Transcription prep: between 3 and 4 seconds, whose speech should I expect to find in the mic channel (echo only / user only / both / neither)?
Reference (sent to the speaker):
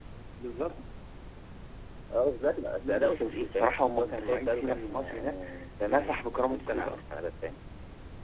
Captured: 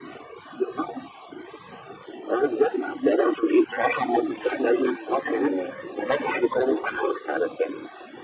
echo only